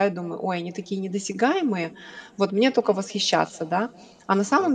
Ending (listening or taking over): listening